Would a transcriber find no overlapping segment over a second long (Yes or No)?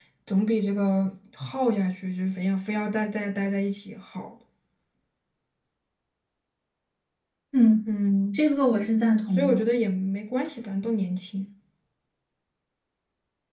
Yes